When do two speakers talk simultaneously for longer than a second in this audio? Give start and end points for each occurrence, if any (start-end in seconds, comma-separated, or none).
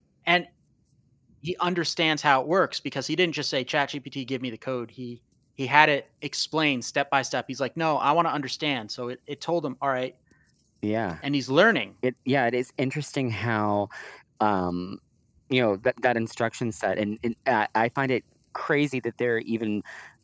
none